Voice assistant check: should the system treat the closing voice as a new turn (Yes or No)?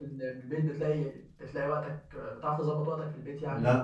Yes